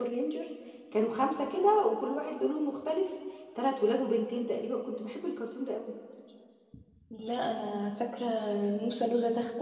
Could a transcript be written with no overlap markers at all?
Yes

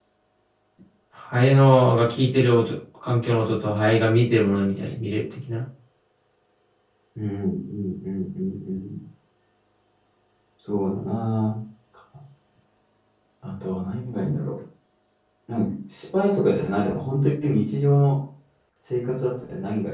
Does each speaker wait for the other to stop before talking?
Yes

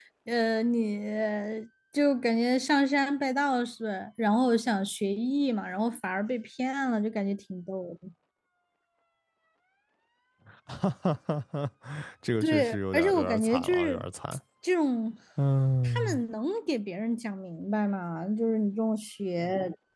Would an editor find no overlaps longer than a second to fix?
No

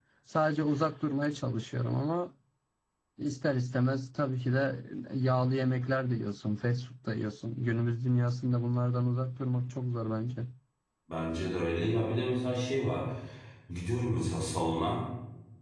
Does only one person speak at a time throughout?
Yes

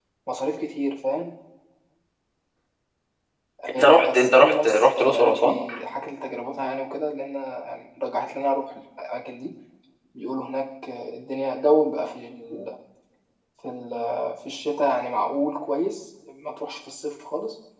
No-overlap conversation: No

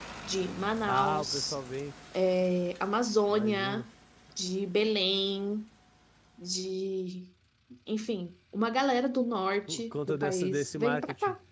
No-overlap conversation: No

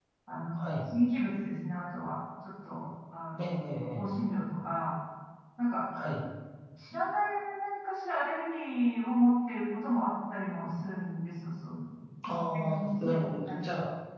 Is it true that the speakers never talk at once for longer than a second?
No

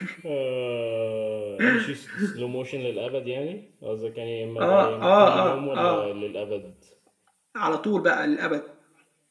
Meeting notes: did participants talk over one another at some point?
Yes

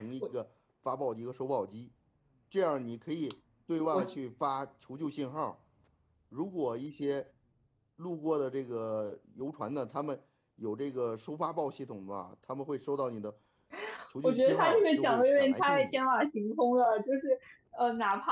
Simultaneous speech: Yes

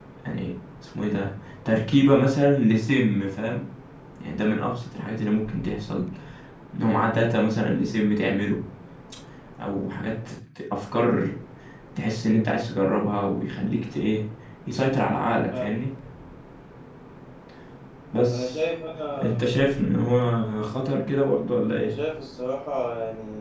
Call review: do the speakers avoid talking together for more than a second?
Yes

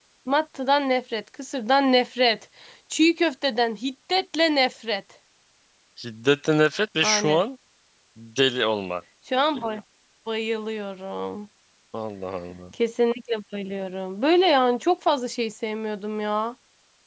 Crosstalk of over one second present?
No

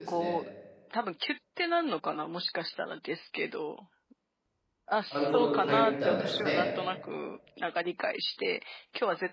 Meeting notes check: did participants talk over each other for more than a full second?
Yes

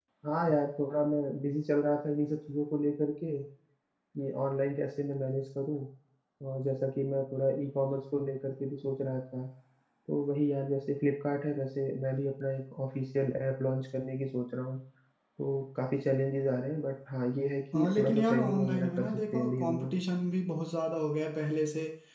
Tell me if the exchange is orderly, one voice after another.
No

